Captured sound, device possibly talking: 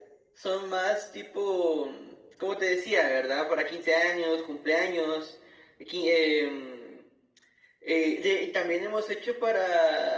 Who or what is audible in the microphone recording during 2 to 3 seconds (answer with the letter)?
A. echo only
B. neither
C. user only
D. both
A